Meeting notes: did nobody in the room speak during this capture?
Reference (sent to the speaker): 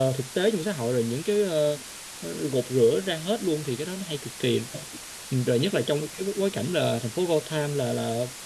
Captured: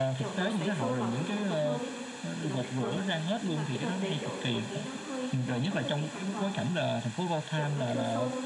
No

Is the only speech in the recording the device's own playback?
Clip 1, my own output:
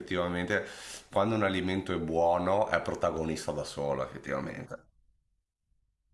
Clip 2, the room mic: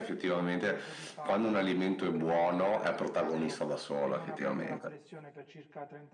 No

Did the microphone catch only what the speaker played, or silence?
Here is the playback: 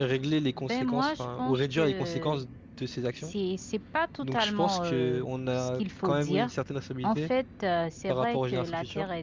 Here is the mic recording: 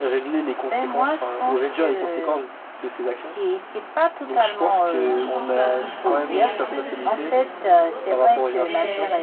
No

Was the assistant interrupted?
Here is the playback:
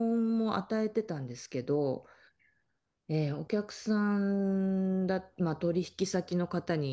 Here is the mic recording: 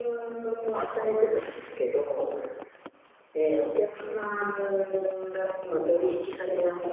No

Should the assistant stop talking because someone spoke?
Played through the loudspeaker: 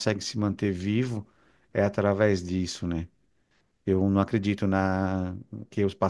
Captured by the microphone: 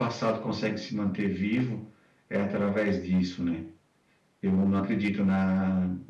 No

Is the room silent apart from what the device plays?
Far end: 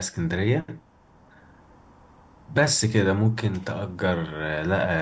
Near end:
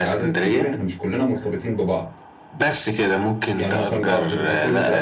No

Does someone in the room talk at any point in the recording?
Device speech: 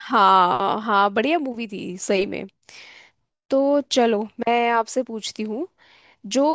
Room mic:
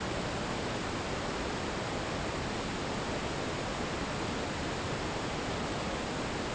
No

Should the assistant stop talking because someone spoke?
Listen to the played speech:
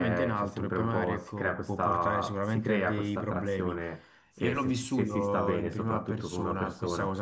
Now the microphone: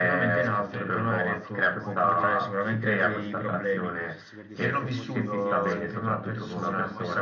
Yes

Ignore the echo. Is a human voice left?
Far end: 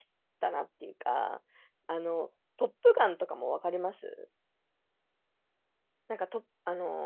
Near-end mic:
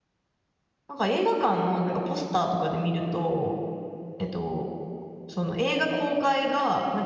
Yes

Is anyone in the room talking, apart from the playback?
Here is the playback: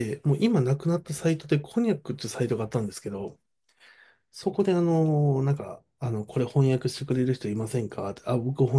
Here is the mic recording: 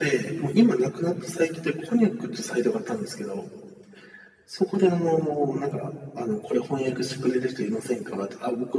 No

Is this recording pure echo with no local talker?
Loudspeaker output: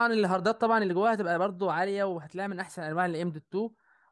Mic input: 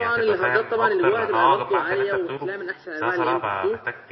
No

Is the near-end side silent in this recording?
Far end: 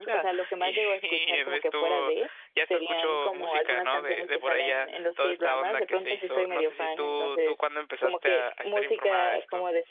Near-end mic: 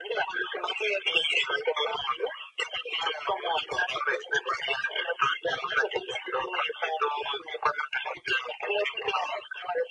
Yes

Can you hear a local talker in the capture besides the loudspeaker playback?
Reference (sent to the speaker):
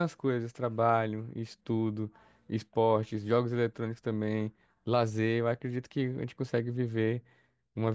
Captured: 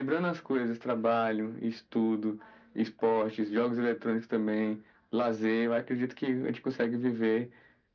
No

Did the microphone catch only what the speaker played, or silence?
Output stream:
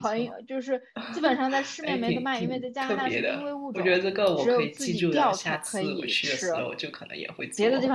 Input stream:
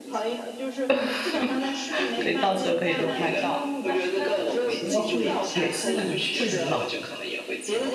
No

